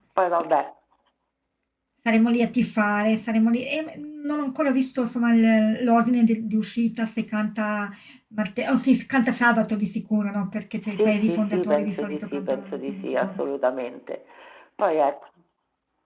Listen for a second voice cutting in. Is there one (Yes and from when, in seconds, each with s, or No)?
Yes, from 11.0 s